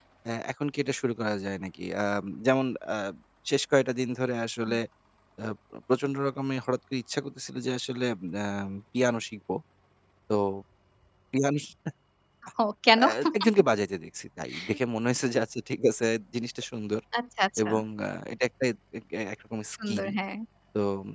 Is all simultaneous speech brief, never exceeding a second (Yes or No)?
Yes